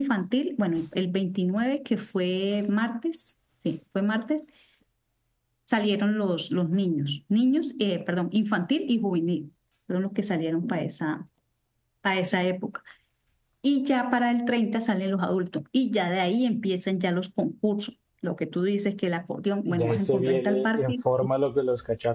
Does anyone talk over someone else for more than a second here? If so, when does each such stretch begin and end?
19.7-20.9

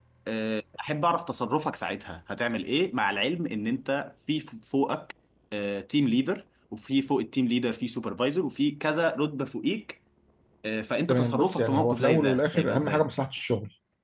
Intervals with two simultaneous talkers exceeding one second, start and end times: 11.1-13.0

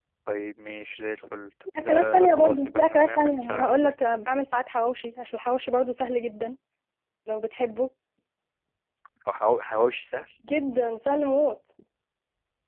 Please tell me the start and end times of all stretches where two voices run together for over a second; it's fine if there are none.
1.8-3.9

